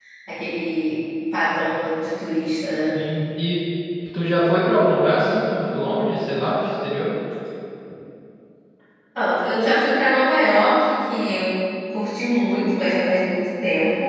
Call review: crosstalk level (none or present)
none